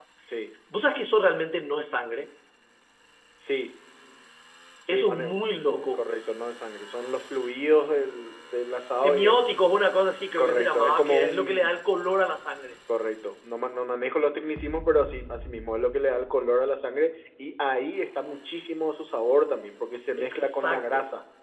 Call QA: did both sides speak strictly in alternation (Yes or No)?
No